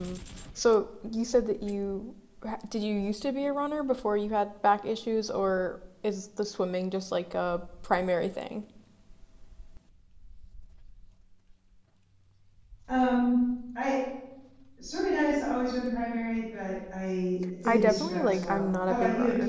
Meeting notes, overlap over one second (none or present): present